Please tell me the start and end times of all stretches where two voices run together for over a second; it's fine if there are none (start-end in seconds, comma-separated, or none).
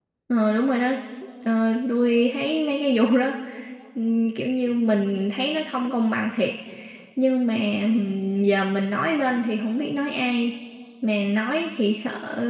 none